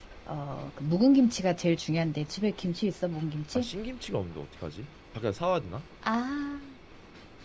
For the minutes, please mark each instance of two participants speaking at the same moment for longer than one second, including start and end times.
none

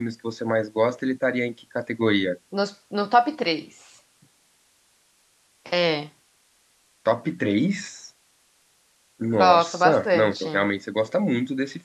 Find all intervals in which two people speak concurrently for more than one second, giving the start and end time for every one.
9.3-10.7

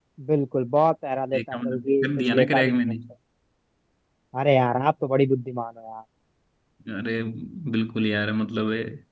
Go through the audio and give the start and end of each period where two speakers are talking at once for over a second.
1.4-2.8

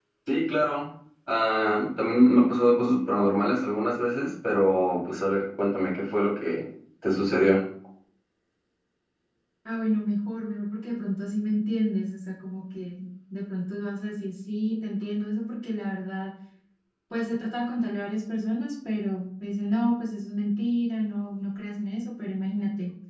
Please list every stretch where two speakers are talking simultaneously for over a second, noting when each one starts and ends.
none

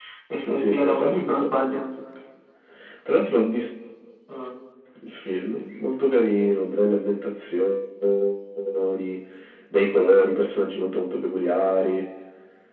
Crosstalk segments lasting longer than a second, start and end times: 0.6-1.8

